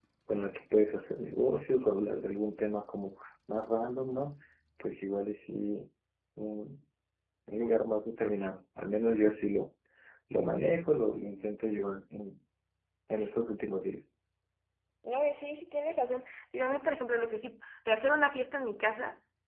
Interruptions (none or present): none